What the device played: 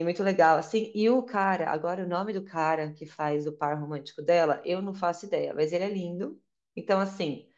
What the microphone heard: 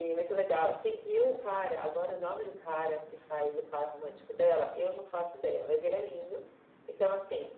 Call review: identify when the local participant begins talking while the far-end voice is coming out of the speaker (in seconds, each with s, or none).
none